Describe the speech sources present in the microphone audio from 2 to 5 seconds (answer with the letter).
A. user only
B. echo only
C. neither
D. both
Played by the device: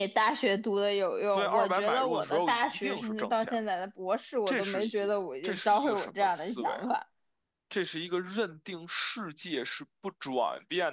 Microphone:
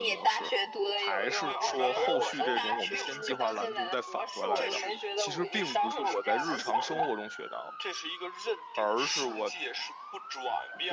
D